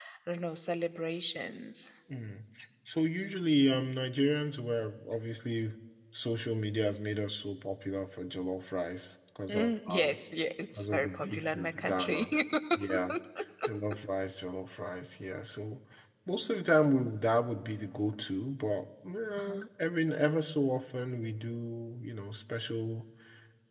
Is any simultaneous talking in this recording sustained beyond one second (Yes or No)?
Yes